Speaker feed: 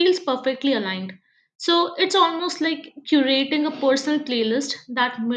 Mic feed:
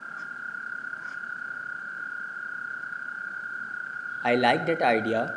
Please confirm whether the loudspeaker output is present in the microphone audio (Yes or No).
No